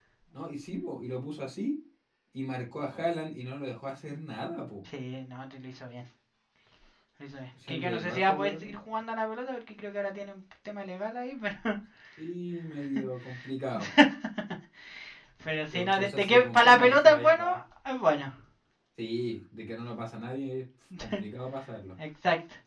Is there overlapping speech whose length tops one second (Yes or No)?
Yes